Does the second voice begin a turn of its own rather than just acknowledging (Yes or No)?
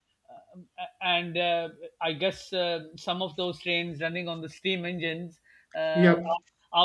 No